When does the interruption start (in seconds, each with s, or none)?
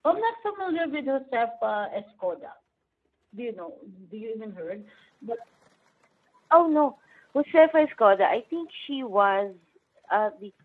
none